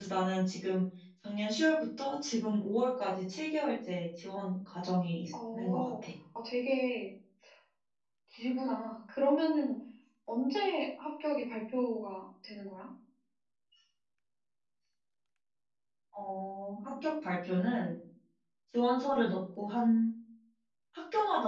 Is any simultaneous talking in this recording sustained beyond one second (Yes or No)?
No